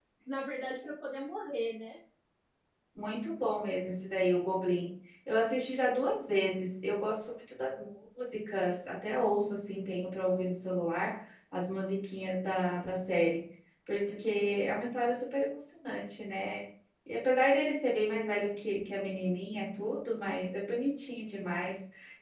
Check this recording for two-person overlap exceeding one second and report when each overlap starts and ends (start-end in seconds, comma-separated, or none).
none